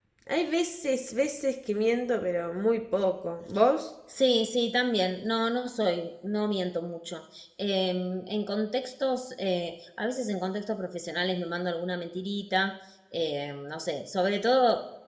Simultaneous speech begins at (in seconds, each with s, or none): none